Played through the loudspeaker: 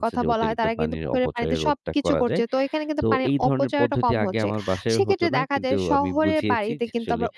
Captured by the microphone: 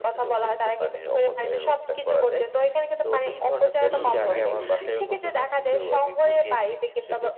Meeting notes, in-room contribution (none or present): present